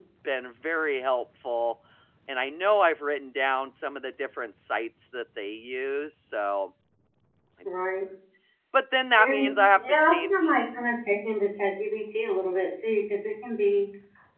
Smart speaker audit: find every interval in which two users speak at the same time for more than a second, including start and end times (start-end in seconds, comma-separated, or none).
9.2-10.5